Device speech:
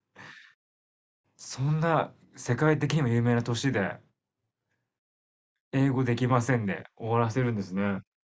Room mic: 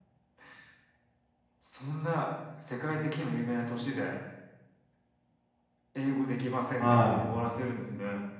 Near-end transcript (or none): はい。